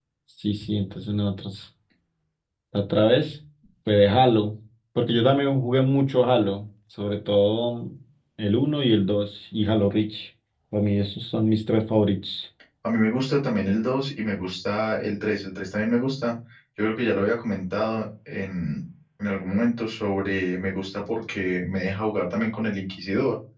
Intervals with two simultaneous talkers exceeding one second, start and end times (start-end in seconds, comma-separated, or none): none